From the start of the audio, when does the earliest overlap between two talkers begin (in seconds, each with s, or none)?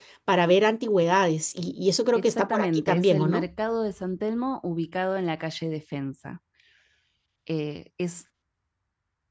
2.1 s